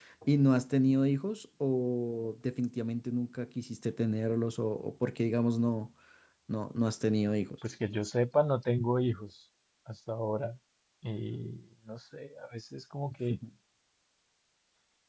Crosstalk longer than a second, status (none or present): none